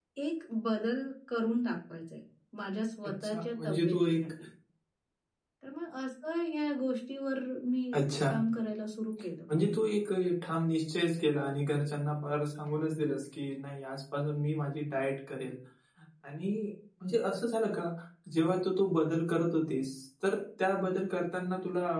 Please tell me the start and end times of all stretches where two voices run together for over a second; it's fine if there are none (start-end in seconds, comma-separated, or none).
3.0-4.3